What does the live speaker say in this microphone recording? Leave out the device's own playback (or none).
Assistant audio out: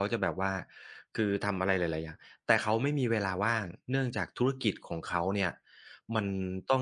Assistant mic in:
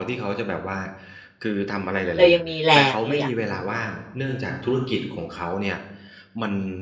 เรายังมีแรงเราอยาก